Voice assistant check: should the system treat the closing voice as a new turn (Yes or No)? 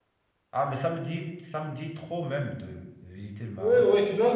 Yes